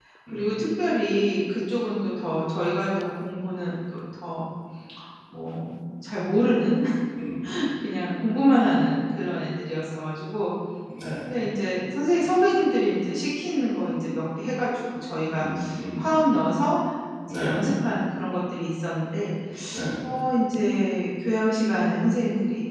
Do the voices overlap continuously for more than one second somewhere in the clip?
No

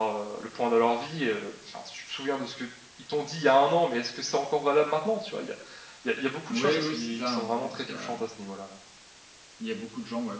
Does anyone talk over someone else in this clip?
Yes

